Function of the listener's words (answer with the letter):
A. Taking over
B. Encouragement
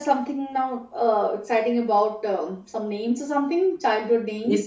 A